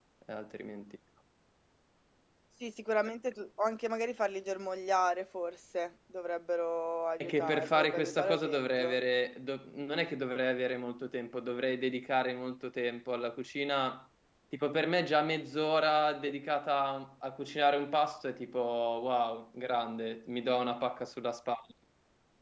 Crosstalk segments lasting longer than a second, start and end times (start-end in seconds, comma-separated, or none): 7.2-9.0